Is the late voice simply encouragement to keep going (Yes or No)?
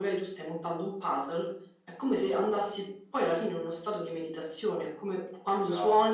Yes